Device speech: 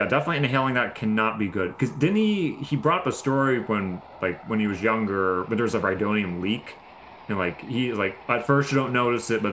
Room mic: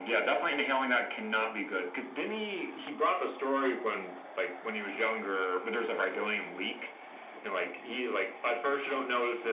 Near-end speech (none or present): none